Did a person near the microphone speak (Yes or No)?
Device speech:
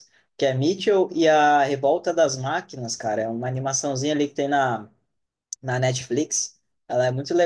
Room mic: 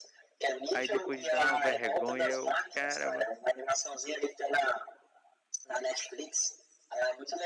Yes